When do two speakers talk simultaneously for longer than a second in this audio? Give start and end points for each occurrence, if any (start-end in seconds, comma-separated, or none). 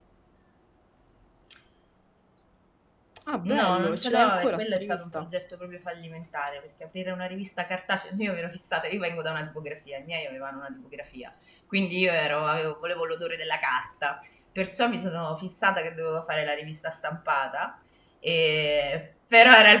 3.5-5.3